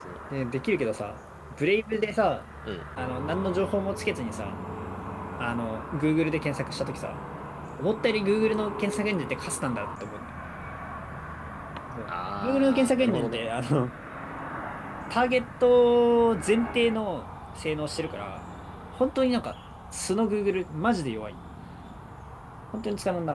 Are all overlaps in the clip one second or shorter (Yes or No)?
No